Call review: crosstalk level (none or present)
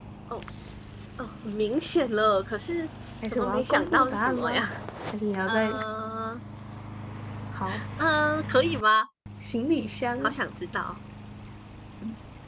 present